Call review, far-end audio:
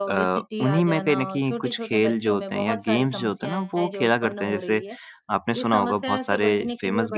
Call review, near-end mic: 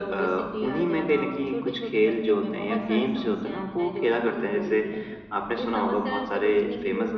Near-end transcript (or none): none